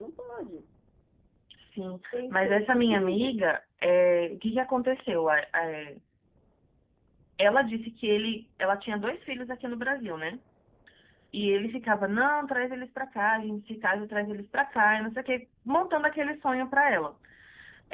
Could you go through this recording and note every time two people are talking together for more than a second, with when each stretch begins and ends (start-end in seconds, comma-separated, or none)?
2.1-3.4